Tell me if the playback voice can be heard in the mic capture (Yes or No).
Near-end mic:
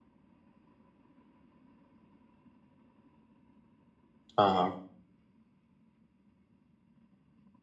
No